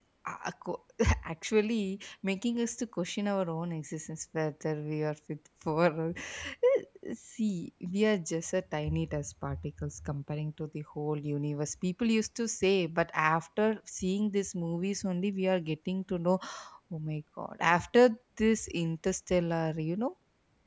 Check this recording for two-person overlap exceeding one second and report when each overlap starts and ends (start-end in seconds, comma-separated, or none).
none